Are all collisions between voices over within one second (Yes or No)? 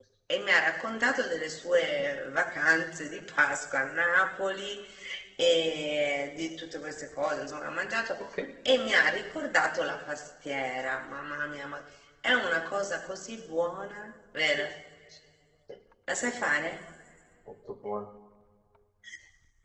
Yes